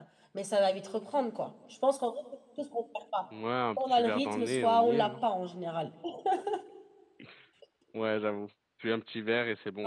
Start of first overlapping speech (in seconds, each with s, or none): 3.8 s